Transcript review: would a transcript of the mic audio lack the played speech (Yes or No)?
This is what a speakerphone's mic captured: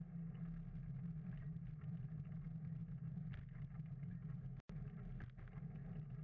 Yes